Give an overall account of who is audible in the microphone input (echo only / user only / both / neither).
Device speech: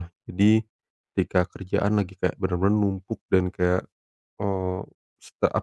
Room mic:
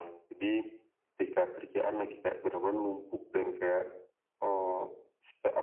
echo only